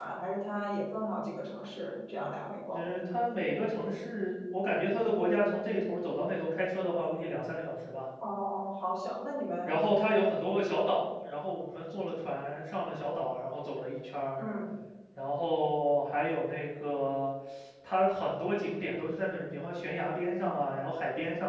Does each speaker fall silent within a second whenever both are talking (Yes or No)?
Yes